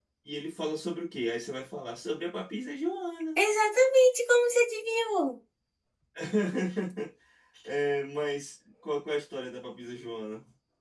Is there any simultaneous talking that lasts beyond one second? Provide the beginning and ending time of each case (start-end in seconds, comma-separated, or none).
none